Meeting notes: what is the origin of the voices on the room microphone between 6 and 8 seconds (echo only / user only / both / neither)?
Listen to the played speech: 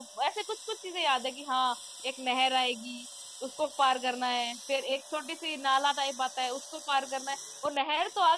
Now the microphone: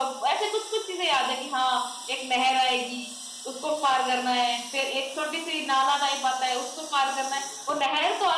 echo only